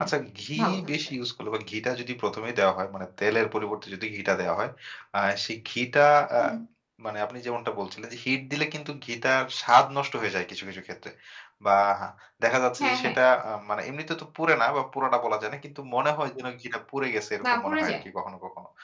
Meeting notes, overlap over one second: none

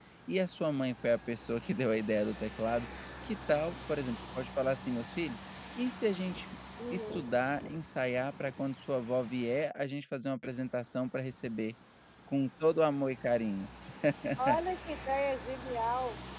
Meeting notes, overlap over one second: none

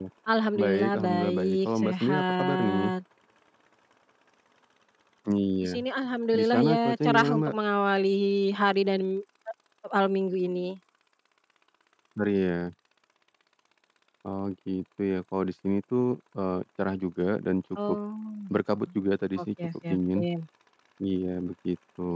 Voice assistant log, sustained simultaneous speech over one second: present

